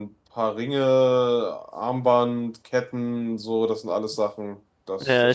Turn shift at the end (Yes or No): Yes